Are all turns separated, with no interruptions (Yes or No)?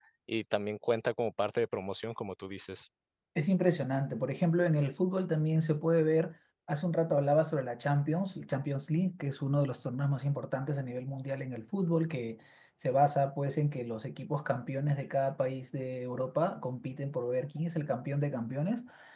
Yes